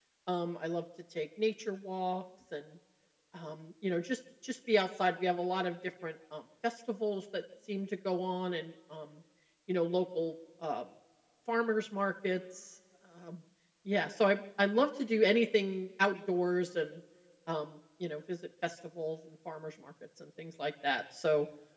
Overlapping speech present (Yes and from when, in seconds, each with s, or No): No